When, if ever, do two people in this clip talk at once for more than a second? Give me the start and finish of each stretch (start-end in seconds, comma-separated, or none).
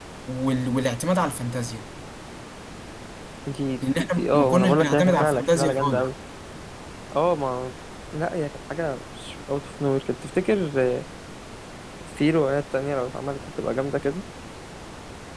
4.0-6.1